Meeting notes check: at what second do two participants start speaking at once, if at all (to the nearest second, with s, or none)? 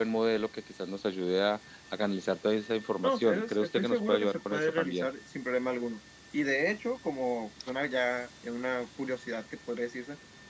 3 s